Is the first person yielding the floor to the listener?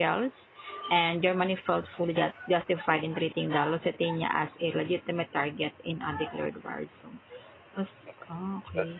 No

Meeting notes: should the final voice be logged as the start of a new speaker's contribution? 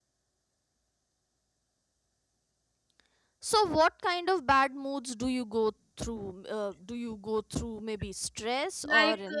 Yes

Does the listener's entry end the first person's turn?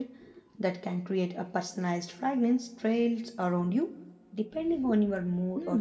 Yes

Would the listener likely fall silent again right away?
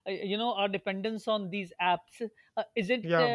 Yes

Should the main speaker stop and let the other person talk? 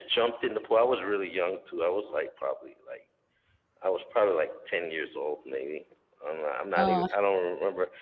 No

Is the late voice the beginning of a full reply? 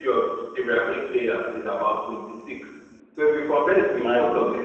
No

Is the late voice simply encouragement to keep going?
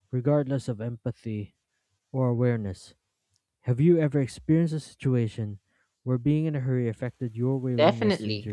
No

